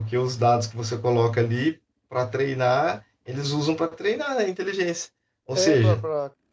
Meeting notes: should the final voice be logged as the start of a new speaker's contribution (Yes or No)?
Yes